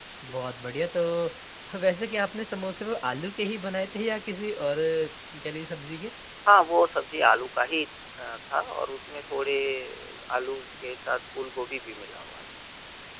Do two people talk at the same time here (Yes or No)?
No